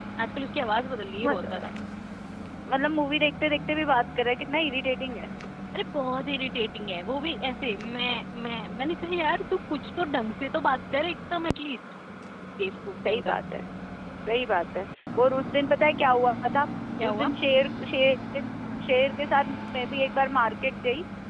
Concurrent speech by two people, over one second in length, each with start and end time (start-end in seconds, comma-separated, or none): none